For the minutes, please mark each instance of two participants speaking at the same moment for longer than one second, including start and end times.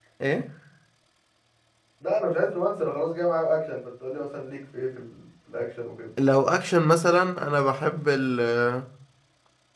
none

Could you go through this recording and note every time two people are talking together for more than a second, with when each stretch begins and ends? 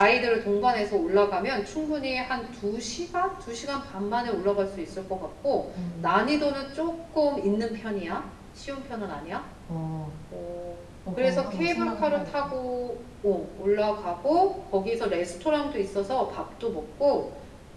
11.2-12.5

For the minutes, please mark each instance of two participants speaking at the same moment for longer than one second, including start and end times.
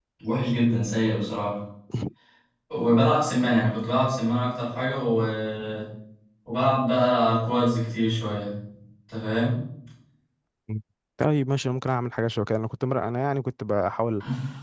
none

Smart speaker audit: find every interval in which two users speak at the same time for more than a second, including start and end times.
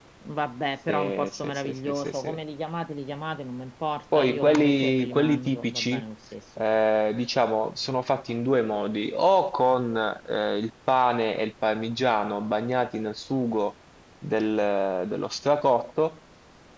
0.9-2.4, 4.1-6.0

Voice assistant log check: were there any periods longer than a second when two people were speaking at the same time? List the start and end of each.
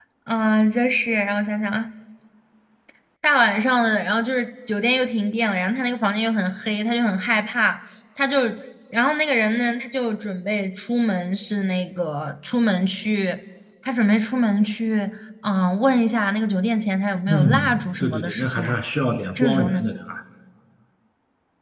17.3-18.8

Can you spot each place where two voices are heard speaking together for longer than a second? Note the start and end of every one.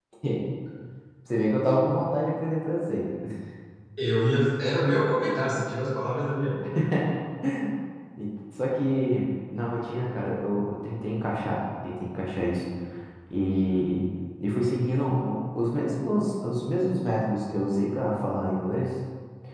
none

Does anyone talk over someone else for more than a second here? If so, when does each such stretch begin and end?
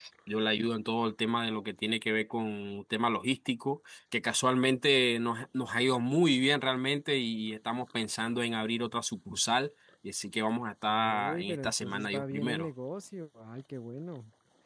10.9-12.7

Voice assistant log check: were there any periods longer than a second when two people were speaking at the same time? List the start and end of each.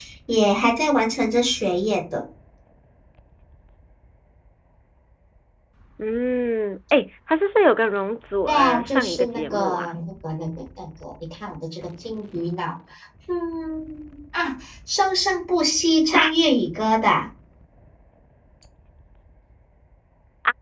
8.5-9.9

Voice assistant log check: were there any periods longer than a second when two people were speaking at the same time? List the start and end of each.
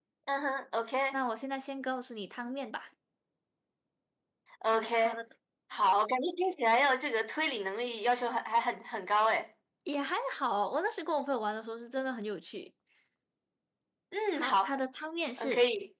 none

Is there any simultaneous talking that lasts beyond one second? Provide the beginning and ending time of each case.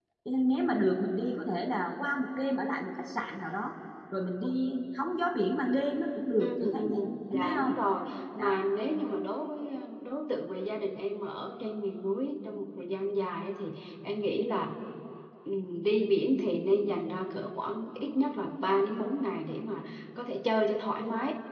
6.4-7.7

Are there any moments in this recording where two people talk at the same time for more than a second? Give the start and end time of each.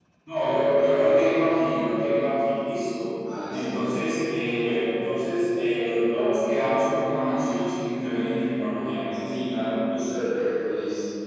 none

